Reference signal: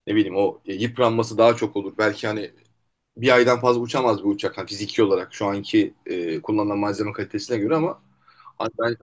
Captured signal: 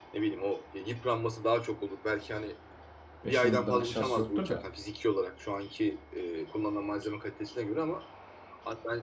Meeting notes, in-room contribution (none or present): present